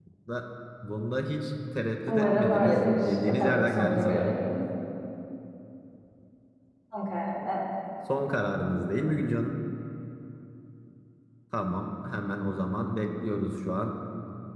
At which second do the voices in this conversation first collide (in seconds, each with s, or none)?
2.1 s